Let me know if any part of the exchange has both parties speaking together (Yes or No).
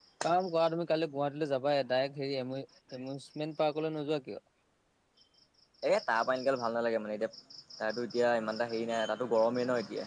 No